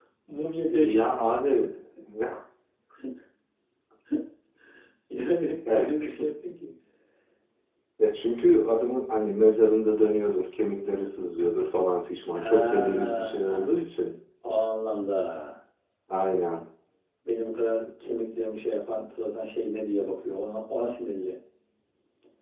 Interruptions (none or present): present